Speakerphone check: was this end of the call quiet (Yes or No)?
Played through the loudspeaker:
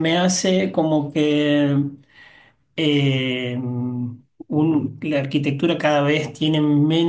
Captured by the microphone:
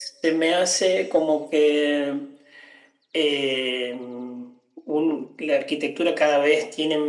Yes